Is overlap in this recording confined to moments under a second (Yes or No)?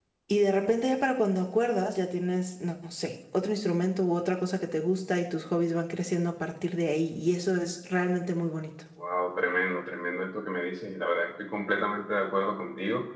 Yes